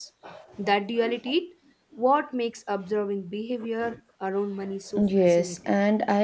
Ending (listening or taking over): taking over